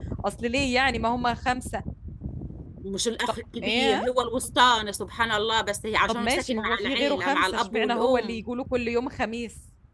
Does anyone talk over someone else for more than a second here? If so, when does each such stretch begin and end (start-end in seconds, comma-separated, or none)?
6.1-8.4